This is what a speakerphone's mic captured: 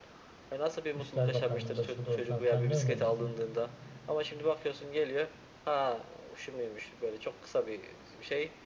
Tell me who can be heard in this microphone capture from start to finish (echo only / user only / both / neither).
both